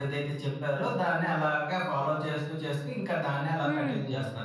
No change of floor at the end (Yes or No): No